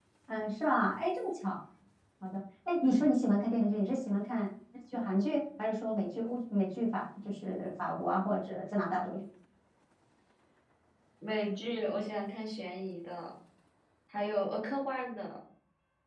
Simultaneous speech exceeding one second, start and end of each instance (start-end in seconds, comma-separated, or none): none